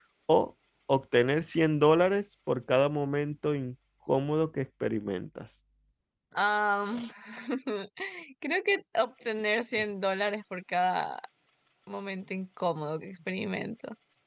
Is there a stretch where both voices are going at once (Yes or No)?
No